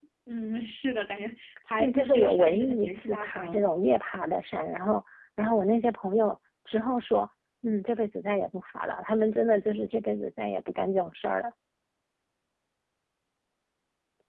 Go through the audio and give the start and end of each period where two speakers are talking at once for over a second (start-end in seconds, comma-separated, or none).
1.8-3.6